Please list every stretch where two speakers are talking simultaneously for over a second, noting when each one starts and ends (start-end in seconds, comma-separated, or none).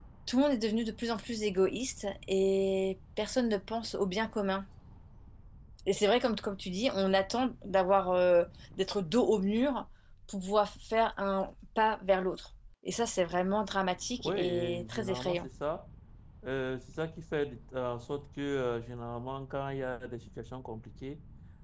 14.2-15.5